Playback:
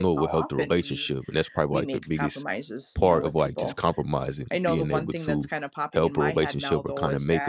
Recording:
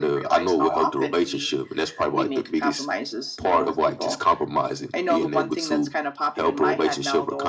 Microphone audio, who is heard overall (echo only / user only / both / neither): echo only